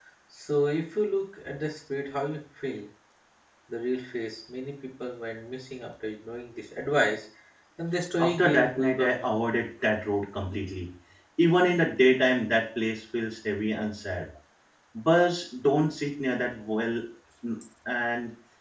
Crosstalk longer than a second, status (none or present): present